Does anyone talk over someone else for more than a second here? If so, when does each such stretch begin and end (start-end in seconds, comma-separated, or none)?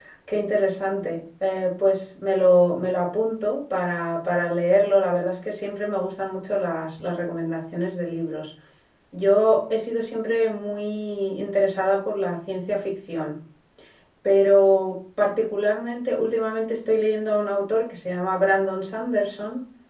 none